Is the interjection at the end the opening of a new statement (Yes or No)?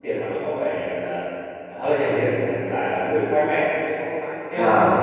No